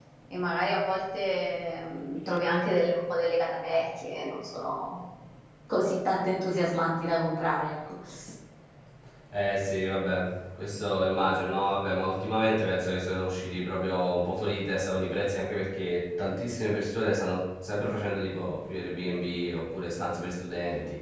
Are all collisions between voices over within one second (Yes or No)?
Yes